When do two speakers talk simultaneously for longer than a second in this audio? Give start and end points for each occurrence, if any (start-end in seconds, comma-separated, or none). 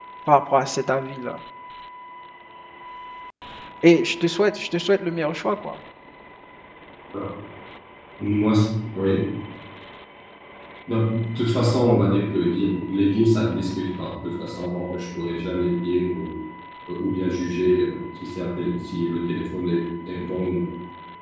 none